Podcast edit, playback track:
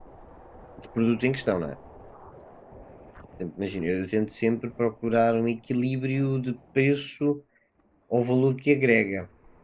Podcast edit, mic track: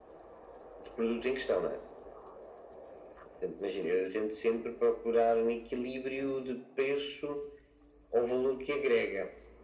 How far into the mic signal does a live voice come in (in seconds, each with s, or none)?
none